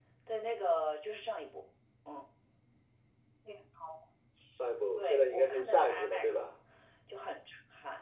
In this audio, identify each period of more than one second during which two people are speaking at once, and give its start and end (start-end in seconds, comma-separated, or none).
5.0-6.4